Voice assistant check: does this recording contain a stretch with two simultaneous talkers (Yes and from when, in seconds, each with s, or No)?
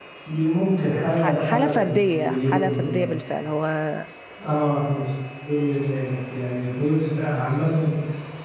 Yes, from 1.1 s